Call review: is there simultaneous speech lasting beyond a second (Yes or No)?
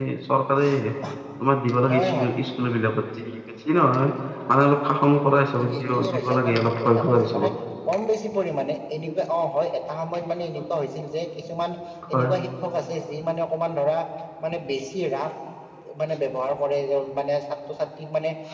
Yes